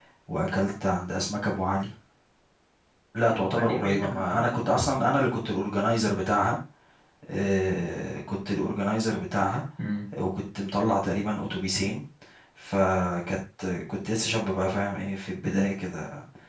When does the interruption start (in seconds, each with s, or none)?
3.3 s